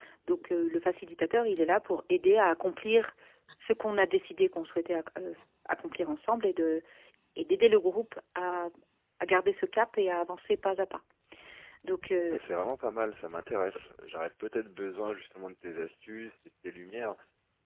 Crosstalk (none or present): none